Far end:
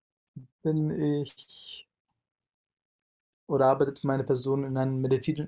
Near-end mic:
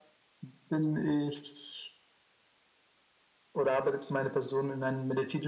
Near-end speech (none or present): none